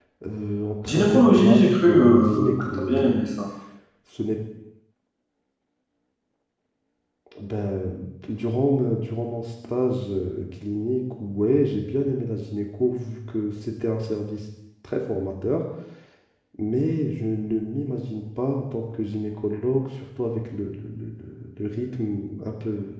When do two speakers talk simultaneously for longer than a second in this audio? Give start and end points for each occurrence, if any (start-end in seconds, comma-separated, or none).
0.9-3.1